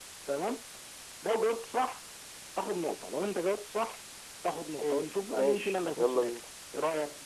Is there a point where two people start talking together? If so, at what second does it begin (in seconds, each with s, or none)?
4.8 s